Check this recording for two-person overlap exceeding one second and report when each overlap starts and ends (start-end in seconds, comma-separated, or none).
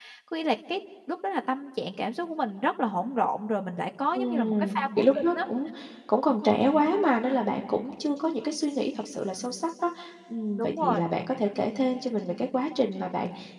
4.1-5.4